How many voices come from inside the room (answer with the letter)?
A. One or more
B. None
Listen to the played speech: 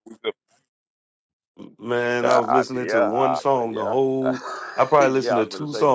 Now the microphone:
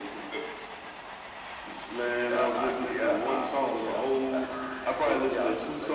B